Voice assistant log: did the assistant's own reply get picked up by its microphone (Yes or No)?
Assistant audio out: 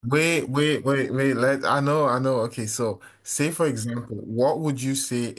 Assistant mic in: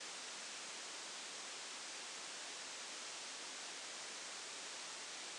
No